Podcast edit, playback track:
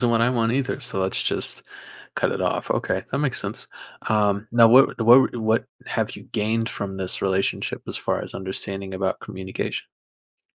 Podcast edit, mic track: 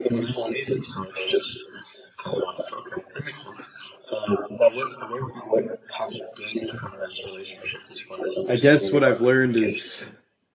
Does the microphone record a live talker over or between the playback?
Yes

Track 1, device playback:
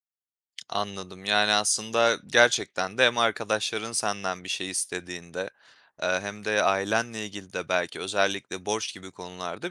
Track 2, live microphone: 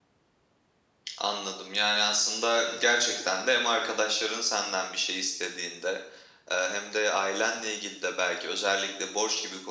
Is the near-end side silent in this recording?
Yes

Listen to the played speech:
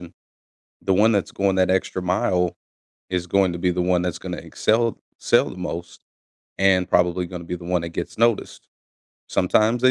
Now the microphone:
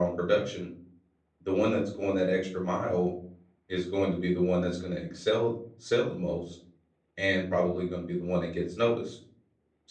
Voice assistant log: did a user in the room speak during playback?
No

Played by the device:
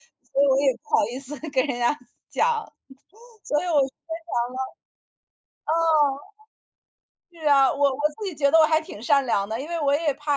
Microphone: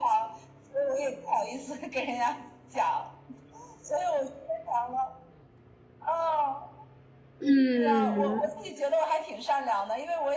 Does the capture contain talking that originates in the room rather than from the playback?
Yes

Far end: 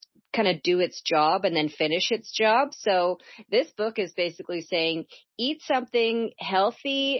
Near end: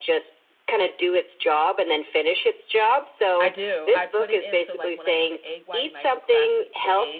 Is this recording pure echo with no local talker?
No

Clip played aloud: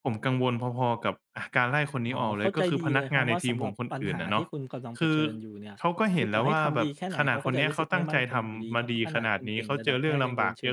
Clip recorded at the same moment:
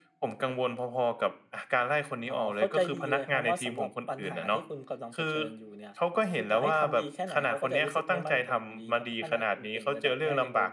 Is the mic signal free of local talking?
Yes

